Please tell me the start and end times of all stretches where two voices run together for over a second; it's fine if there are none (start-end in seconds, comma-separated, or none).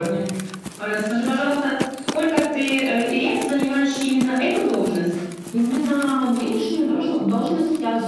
none